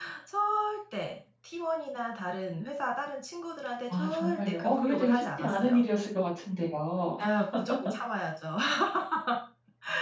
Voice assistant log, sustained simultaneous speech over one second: present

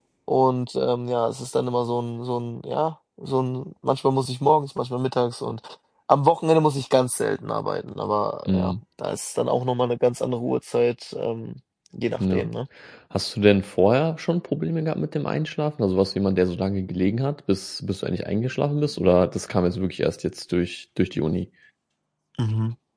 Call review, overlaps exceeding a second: none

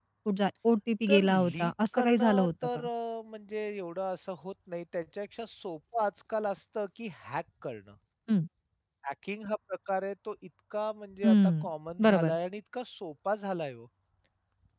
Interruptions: present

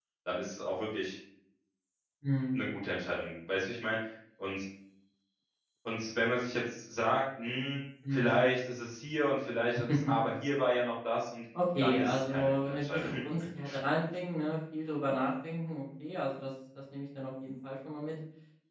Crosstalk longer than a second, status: present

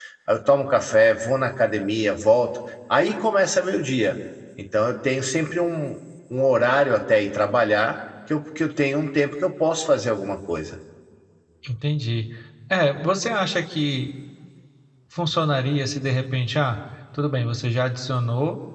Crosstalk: none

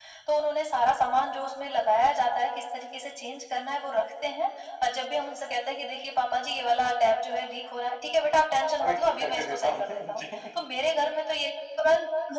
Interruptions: present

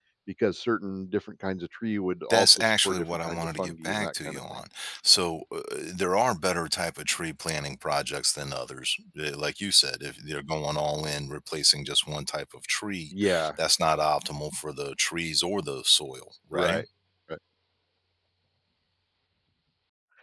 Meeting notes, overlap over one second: present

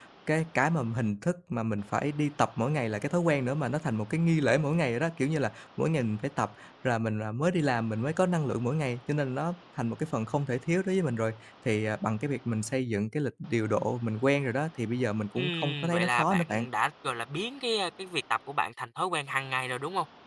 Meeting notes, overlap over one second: present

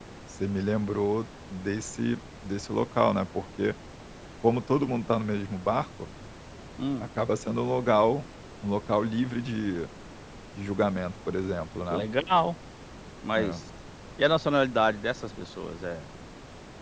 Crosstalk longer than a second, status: none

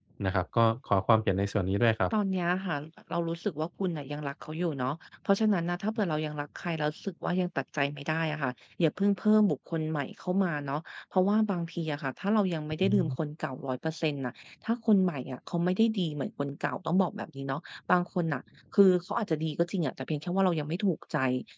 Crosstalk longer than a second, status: none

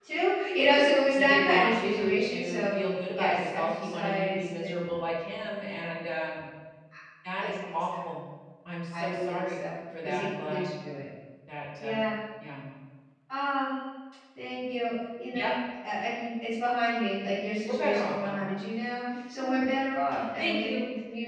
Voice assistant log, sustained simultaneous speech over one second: present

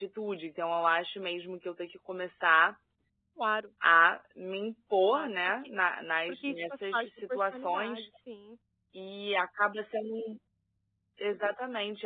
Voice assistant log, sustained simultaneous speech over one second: present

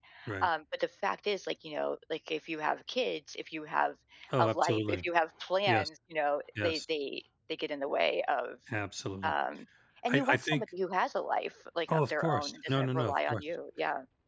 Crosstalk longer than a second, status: present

